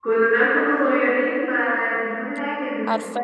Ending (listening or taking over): listening